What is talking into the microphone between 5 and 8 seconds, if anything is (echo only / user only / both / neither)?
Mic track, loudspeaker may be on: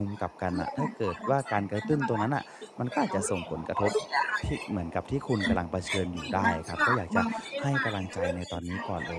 both